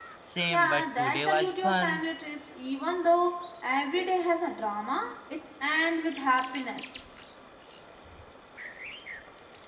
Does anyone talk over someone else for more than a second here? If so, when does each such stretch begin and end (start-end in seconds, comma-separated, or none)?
0.5-2.0